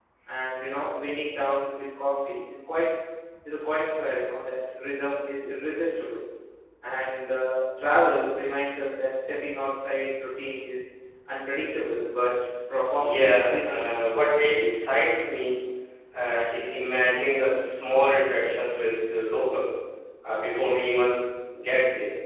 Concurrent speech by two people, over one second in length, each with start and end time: 12.9-14.2

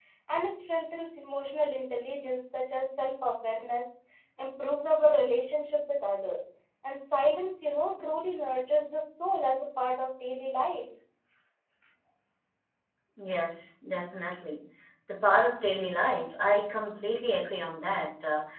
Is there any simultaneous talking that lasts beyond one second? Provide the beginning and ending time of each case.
none

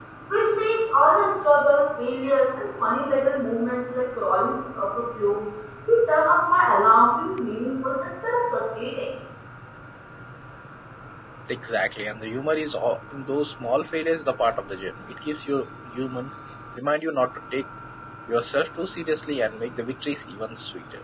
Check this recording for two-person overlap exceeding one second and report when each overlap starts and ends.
none

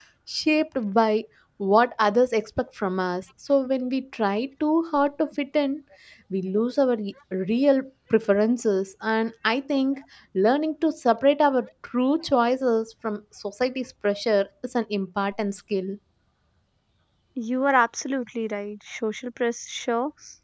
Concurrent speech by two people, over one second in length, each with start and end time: none

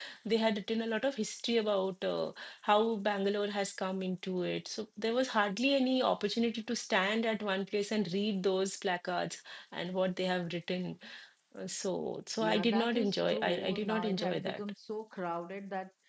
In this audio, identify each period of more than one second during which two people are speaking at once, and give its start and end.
12.4-14.6

